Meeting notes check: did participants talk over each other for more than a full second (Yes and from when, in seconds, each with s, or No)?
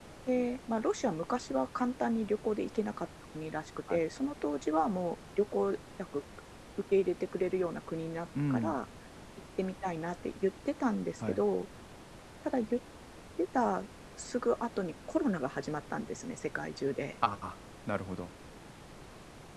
No